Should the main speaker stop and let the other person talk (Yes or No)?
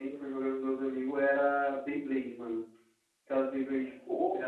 Yes